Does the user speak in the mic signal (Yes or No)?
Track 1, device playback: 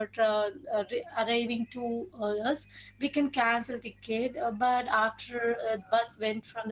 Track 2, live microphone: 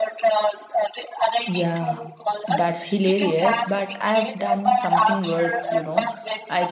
Yes